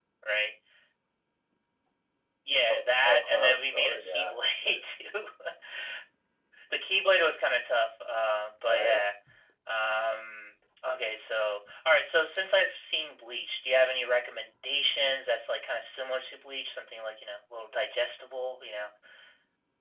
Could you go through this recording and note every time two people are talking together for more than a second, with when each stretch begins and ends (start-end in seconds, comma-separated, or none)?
2.7-4.3